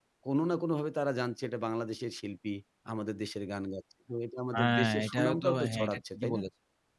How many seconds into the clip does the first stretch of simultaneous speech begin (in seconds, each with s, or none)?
4.5 s